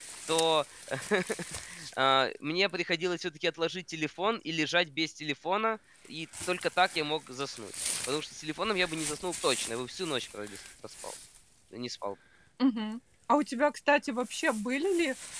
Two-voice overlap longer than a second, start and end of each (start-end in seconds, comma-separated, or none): none